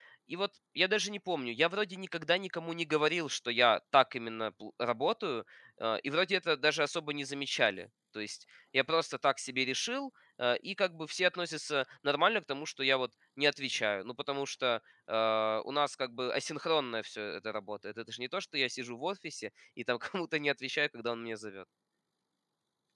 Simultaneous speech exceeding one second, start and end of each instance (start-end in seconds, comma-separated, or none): none